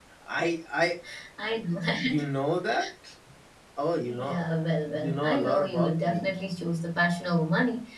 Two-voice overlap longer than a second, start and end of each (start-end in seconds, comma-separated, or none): 4.9-6.3